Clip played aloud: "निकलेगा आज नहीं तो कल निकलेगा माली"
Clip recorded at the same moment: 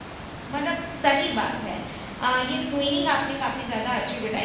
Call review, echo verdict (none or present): none